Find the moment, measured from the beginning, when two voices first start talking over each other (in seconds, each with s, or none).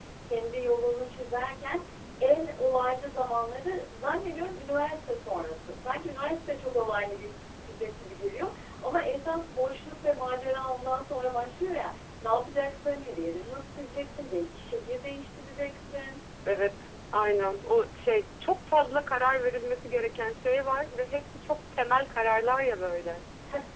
none